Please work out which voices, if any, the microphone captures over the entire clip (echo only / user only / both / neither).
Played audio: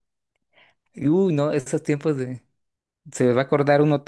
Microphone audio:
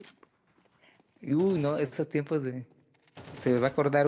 echo only